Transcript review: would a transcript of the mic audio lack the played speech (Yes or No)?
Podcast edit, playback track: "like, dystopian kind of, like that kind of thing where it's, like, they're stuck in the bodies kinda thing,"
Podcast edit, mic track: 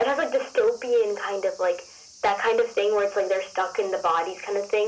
No